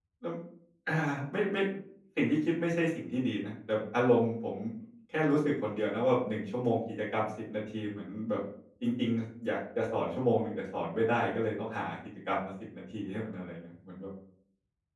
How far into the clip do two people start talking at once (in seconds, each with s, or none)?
none